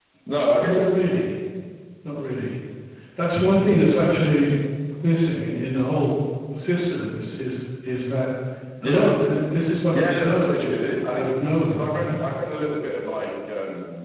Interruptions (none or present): present